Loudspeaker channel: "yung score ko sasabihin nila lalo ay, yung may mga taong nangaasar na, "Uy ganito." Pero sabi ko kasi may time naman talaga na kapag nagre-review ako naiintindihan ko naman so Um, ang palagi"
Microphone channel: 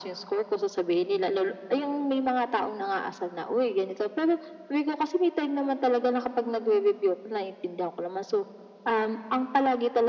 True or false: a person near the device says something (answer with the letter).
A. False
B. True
A